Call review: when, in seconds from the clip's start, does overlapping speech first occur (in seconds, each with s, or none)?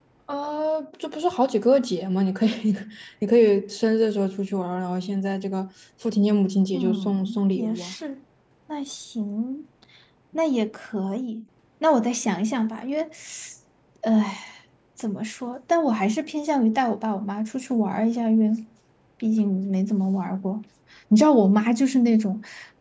6.7 s